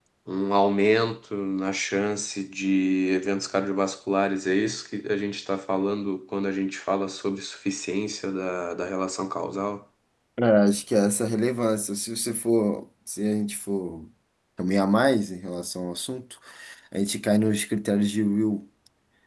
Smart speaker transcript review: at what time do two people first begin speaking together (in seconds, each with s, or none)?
none